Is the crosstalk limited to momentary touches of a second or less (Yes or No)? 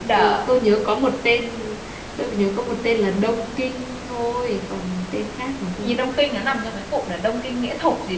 Yes